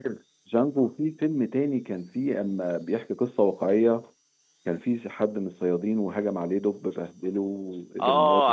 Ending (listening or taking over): taking over